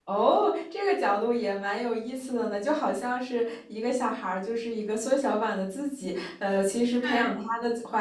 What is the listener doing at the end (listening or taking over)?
listening